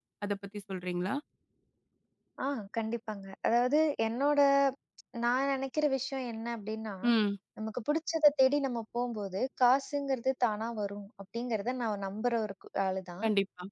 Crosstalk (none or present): none